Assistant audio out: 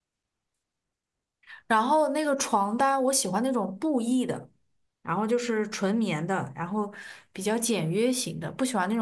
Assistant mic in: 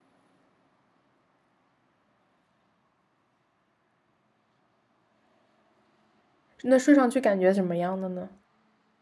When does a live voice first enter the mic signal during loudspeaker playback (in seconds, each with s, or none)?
6.6 s